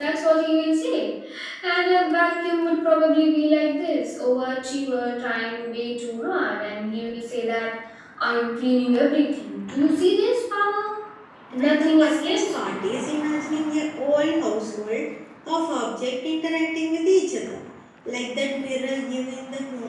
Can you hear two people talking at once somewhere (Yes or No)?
Yes